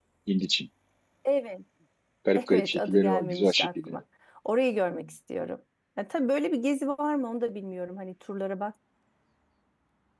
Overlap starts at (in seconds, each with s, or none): 2.4 s